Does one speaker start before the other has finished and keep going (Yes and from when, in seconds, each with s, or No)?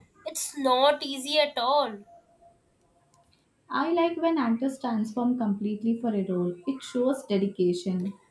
No